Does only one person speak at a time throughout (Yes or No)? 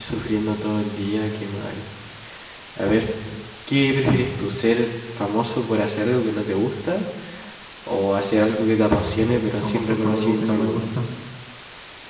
No